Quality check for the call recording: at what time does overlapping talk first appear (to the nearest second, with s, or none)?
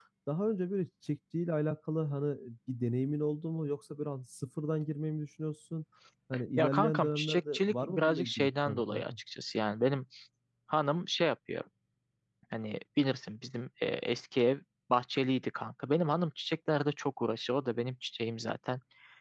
7 s